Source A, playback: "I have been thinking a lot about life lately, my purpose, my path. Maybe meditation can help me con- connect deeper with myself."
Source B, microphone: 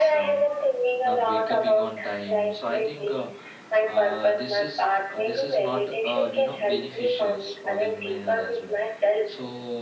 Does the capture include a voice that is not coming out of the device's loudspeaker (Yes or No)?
Yes